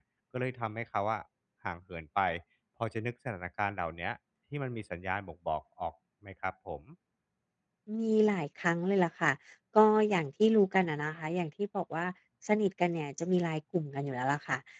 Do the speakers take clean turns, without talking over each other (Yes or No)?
Yes